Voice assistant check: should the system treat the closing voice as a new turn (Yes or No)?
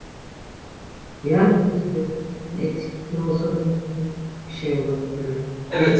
Yes